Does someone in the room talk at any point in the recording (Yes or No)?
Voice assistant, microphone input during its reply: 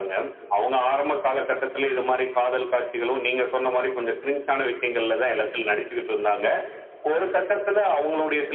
No